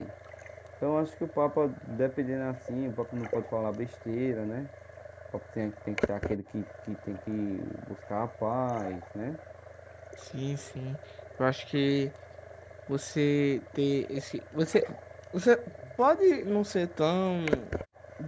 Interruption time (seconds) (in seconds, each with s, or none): none